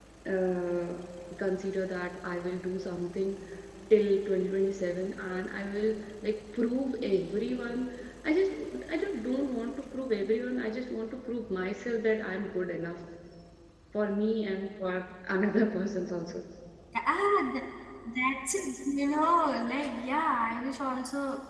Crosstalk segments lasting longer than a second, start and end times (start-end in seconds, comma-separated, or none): none